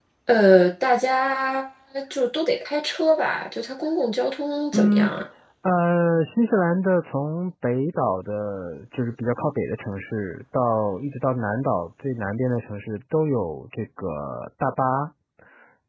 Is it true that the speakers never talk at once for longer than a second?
Yes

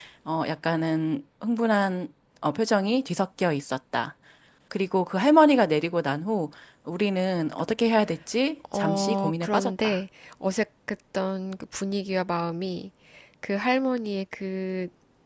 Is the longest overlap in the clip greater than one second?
Yes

